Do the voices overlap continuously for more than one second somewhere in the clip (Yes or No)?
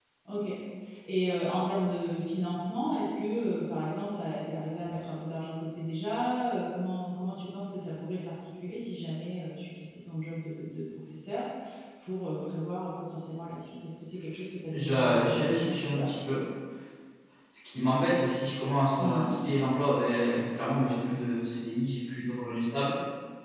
Yes